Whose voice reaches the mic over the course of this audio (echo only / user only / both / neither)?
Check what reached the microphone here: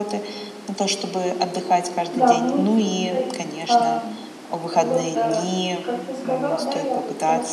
both